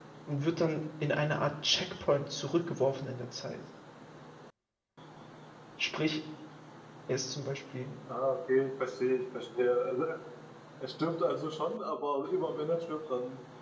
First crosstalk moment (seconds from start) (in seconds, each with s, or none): none